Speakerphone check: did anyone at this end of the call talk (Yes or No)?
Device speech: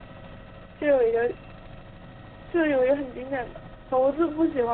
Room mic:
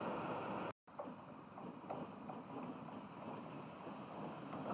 No